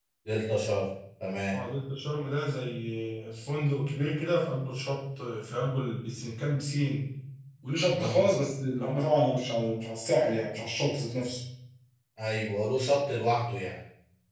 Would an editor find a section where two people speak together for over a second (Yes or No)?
No